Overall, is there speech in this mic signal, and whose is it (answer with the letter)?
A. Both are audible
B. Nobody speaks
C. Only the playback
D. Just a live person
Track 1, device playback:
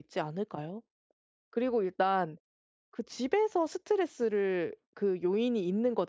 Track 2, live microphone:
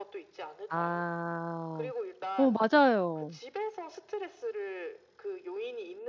A